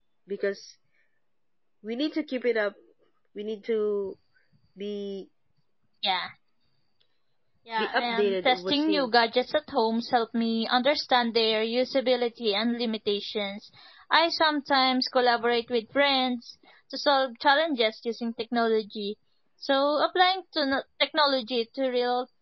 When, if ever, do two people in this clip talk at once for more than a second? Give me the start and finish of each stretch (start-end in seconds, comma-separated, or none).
7.8-9.1